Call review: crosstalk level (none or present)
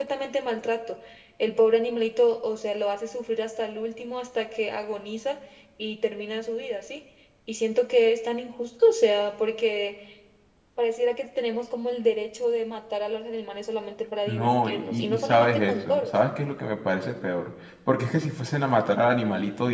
present